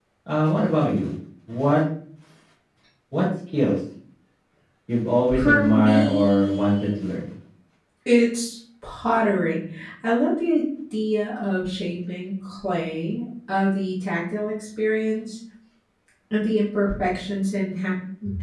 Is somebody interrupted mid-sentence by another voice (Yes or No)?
Yes